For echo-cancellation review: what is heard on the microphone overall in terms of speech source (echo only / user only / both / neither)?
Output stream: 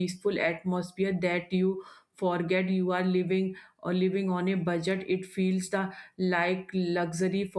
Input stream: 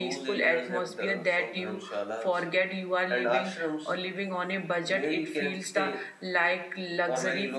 both